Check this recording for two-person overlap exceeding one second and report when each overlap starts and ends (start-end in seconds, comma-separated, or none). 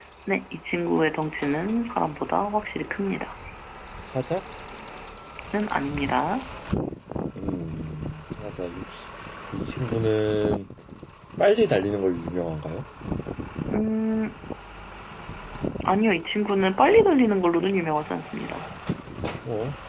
none